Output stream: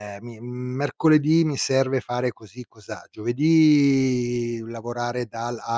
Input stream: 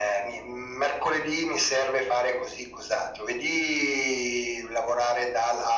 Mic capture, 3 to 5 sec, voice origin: echo only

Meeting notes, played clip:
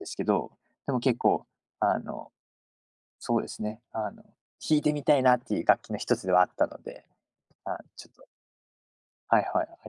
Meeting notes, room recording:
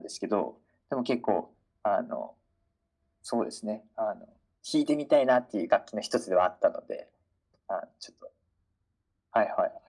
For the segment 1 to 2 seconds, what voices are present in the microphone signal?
echo only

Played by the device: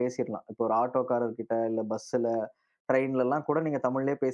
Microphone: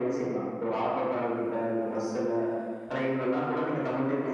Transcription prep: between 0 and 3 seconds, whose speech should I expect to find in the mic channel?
echo only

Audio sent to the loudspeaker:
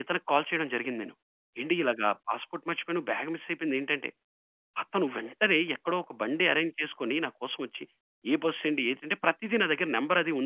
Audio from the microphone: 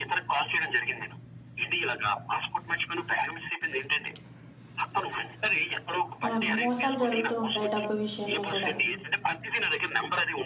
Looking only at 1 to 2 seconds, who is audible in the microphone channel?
echo only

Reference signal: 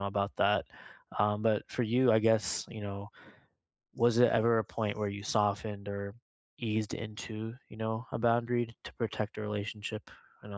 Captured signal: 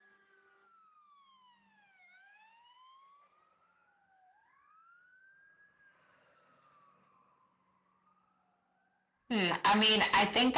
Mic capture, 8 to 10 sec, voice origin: user only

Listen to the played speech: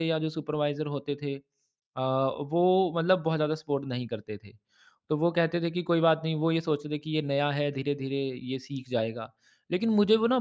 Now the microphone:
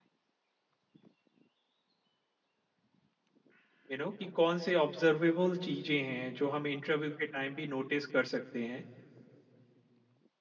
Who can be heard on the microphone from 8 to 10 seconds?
user only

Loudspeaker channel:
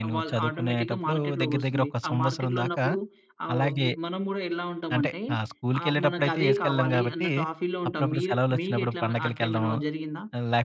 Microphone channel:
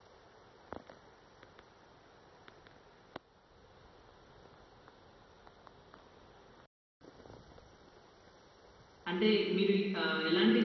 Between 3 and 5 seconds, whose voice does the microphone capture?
neither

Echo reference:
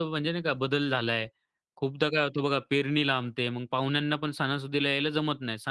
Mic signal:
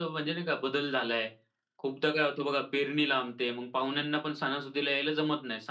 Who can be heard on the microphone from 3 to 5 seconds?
echo only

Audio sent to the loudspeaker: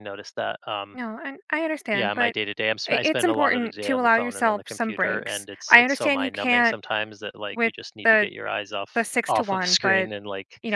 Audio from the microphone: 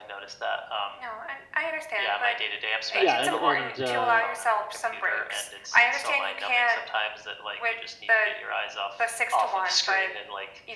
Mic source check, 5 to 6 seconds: echo only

